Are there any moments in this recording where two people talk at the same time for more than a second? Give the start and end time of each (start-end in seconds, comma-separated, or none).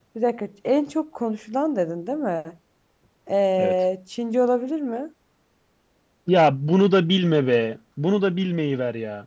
none